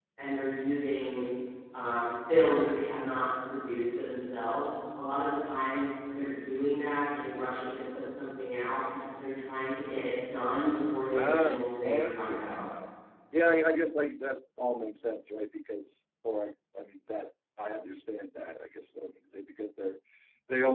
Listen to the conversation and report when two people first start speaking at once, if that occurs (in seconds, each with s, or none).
11.0 s